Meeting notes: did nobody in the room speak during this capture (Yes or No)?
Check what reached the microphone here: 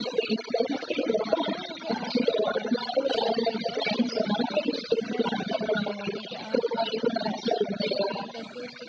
No